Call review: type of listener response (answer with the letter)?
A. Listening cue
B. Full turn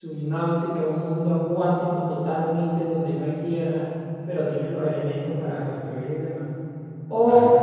A